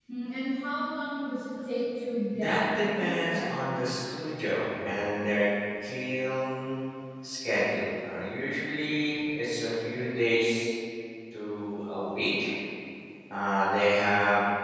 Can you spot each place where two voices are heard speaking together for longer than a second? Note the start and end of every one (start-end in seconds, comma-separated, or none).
2.4-3.6